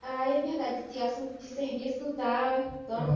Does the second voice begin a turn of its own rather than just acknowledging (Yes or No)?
No